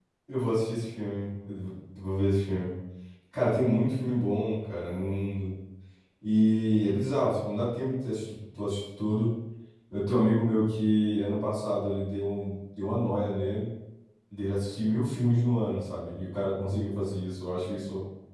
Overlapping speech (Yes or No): No